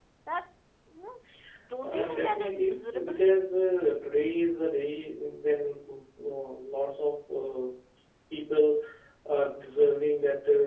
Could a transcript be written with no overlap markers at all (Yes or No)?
No